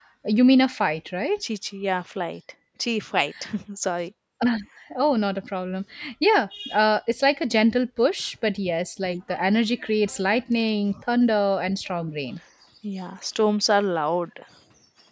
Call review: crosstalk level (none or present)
none